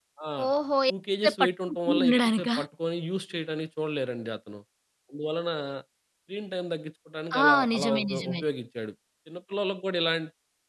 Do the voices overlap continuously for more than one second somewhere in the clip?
Yes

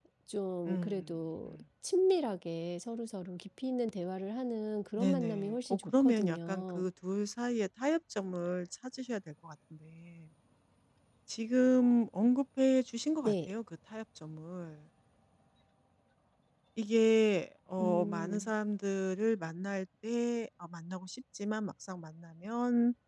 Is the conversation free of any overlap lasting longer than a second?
No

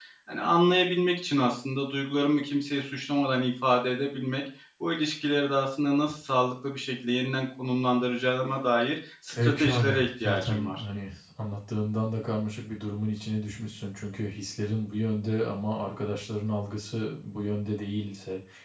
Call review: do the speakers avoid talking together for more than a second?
No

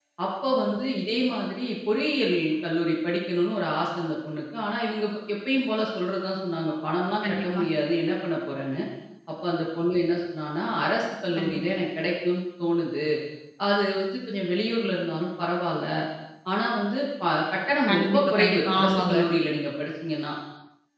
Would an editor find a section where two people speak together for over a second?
Yes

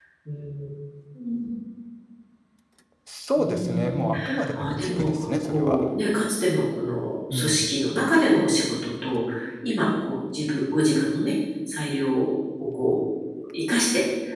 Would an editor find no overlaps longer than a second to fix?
No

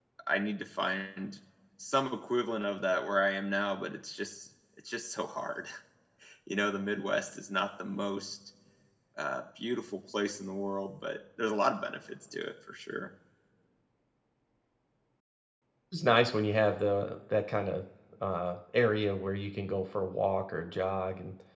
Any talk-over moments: No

